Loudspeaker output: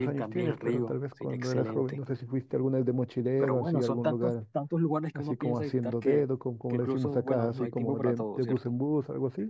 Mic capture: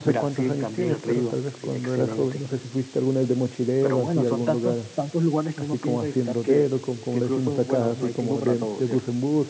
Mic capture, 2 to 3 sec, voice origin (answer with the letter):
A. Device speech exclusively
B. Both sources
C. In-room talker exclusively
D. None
A